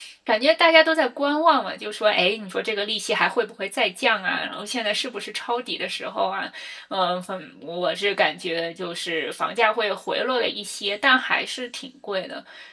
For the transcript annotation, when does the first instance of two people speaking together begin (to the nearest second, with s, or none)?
none